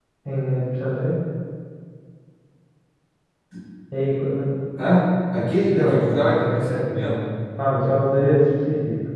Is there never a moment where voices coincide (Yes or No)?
No